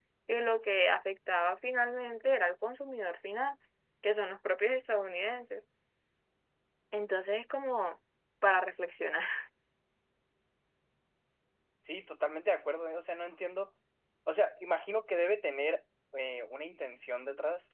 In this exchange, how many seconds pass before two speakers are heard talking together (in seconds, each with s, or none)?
none